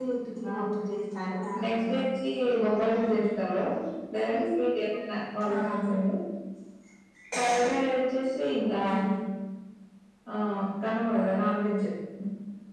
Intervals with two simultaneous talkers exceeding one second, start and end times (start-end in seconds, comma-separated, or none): none